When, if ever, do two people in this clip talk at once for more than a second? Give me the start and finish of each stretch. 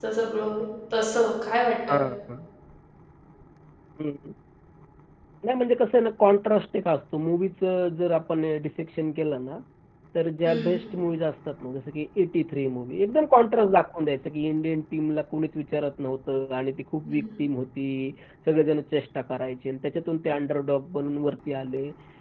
none

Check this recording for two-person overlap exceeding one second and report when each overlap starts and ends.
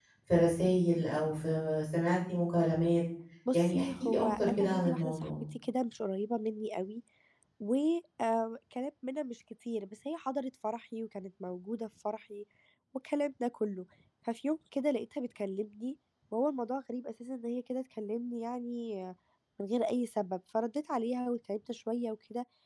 3.5-5.3

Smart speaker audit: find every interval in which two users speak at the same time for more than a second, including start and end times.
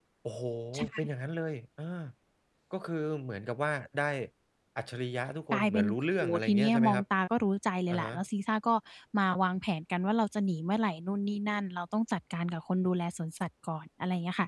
5.5-7.0

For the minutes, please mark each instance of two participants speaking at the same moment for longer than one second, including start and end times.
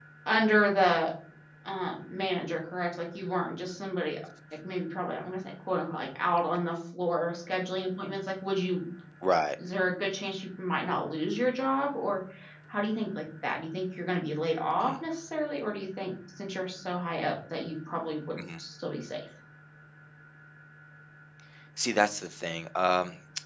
none

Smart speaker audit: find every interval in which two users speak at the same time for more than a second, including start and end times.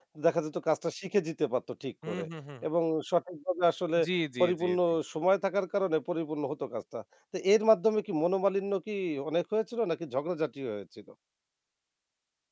none

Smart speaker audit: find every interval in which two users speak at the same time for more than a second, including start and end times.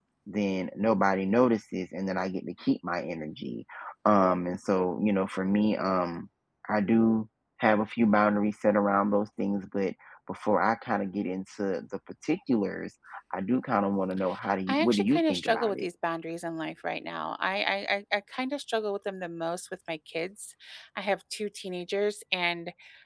14.7-15.9

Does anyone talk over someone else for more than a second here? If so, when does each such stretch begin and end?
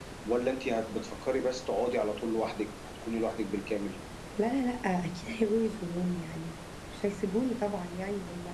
none

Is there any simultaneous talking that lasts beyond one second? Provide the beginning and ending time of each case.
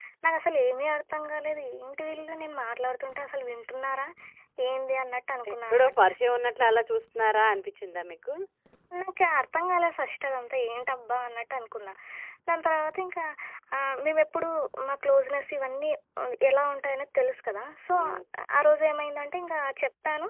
none

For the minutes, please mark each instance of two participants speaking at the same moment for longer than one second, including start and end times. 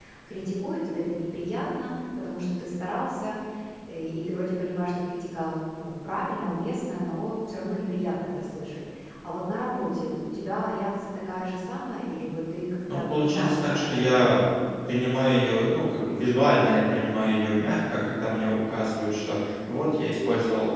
12.9-14.4

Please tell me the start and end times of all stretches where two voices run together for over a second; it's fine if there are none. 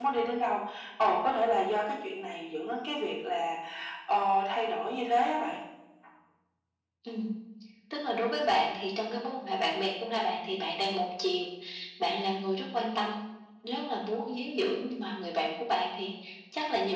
none

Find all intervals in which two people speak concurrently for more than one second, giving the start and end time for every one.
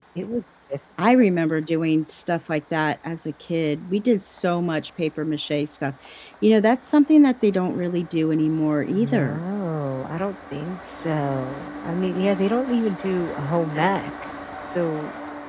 none

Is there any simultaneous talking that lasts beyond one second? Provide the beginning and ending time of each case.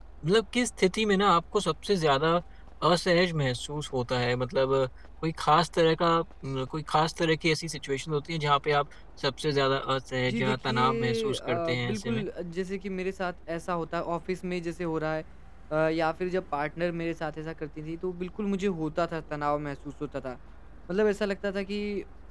10.3-12.2

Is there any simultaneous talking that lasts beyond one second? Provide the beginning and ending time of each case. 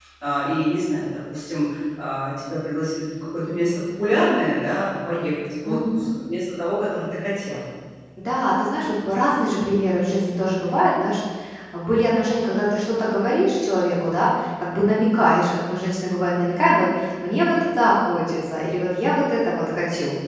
none

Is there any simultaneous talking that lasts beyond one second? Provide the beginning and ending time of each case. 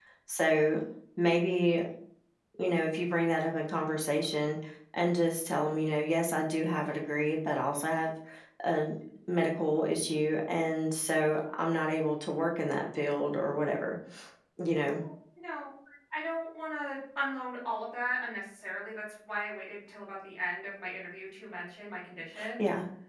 none

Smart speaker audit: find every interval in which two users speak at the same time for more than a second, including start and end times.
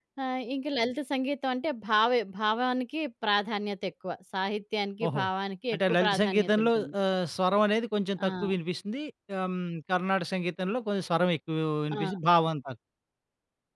5.7-6.9

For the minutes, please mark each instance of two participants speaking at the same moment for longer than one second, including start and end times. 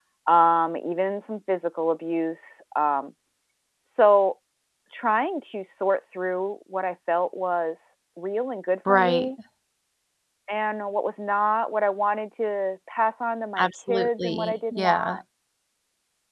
13.6-15.2

